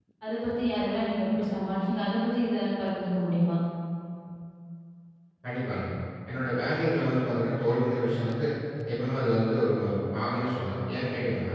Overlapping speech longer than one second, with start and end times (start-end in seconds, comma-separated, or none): none